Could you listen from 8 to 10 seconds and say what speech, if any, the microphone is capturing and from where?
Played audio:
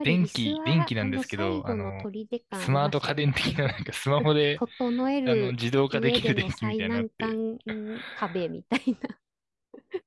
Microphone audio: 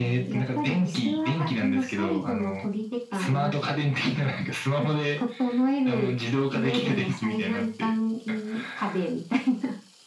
echo only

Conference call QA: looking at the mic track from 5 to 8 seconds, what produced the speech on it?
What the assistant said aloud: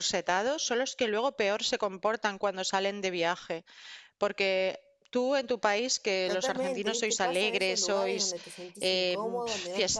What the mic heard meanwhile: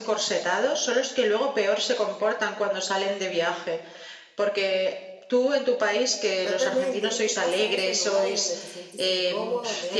echo only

